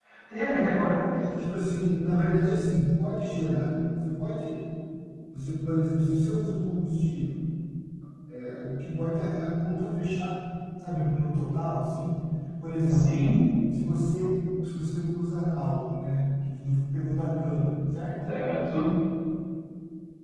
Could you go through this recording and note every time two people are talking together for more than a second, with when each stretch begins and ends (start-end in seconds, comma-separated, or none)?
none